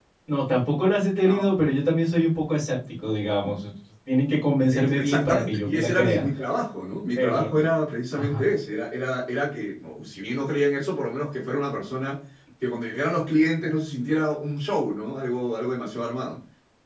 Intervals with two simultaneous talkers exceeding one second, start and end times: 4.7-6.3

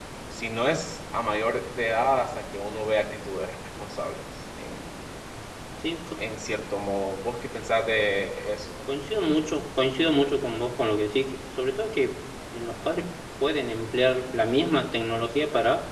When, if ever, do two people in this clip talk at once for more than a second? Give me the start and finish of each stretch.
none

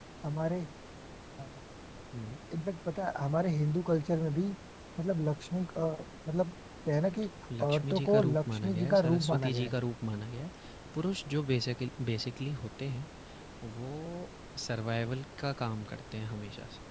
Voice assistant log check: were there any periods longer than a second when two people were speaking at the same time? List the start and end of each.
7.6-9.8

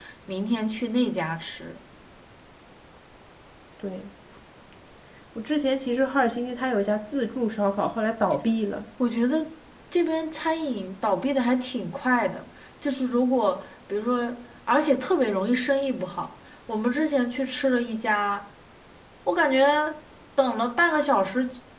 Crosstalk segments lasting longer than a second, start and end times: none

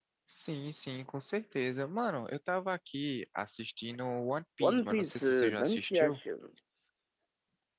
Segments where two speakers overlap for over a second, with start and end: 4.6-6.2

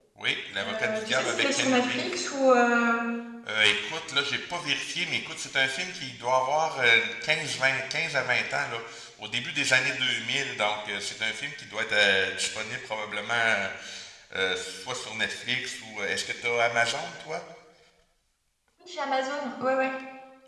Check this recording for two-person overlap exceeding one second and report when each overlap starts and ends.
0.6-2.0

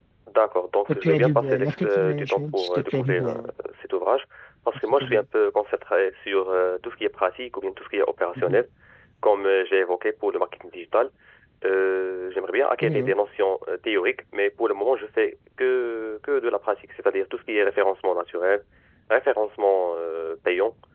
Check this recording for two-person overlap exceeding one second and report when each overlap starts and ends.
0.9-3.3

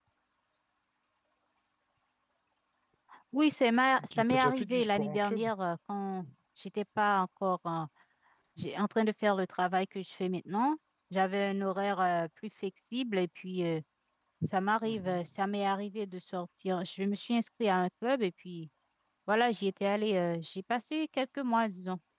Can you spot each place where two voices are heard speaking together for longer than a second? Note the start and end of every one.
4.0-5.5

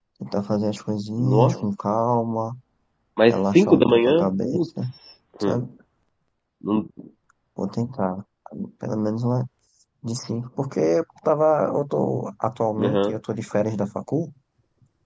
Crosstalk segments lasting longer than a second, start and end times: 3.3-4.9

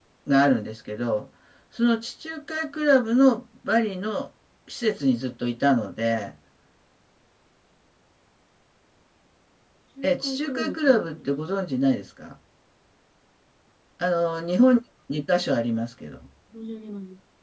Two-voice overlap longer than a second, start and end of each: 10.0-11.6

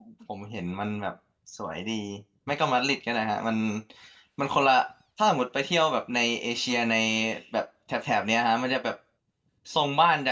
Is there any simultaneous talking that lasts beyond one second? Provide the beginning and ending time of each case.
none

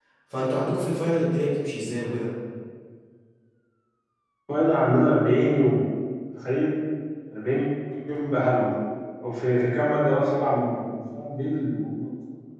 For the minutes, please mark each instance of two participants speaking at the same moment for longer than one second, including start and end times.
none

